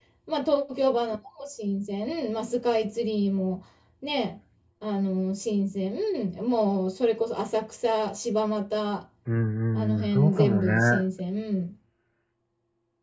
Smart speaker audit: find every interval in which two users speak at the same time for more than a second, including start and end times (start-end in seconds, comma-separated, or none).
9.8-11.0